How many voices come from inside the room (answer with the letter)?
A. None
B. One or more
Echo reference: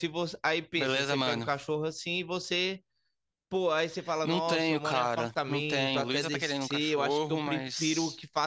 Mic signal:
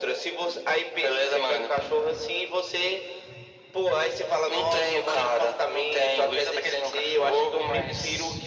A